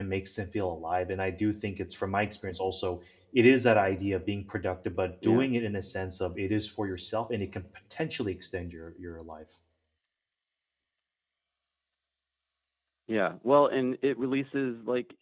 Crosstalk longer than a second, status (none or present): none